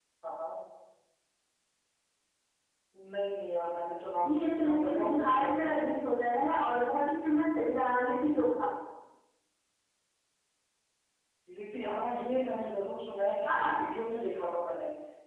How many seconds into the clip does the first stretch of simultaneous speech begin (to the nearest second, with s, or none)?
4 s